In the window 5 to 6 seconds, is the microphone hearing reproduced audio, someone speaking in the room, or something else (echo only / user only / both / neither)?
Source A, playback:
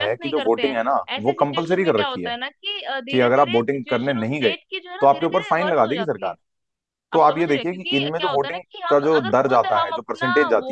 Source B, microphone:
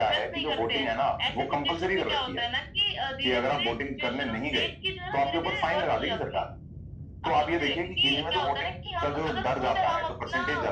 echo only